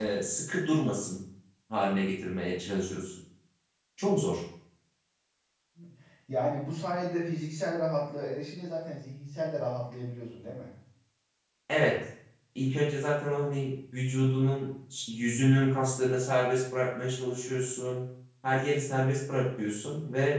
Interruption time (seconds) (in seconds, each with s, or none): none